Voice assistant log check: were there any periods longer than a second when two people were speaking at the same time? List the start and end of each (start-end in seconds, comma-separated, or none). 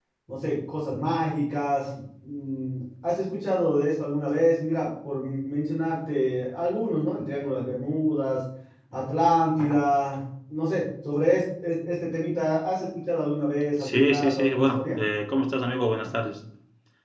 13.8-15.0